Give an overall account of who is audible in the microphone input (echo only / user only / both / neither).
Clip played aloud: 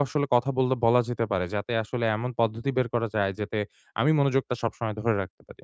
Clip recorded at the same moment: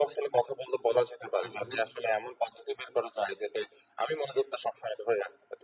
both